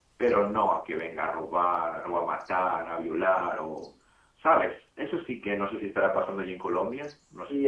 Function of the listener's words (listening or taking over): taking over